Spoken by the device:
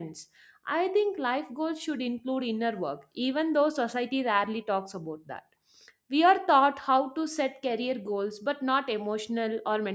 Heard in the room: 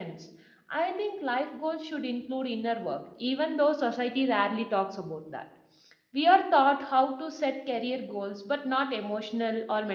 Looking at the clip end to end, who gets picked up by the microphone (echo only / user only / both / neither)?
echo only